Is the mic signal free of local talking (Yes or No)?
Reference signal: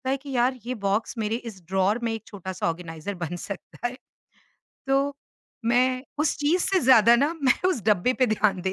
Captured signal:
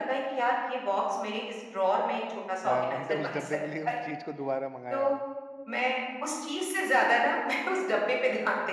No